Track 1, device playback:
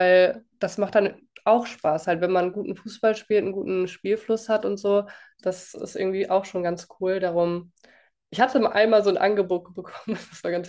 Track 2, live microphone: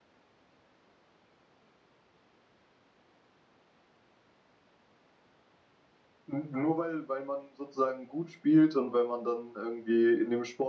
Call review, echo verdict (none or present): none